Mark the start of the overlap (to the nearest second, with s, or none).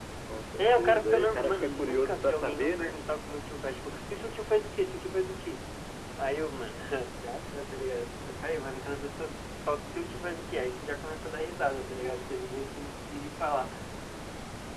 1 s